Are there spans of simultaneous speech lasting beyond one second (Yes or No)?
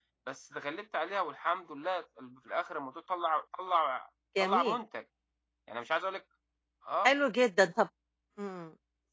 No